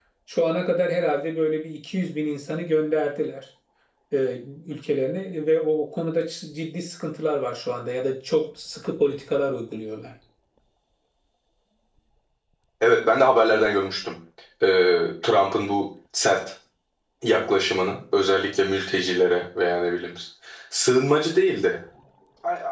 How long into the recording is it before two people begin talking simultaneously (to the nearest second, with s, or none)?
none